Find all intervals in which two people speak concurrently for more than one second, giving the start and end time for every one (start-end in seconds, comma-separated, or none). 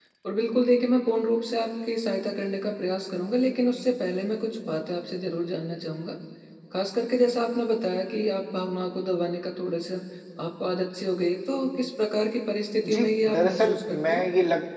12.8-14.2